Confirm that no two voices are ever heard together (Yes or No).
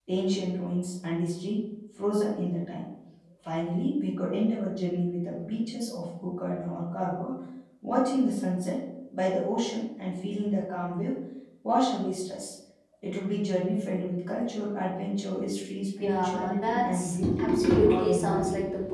No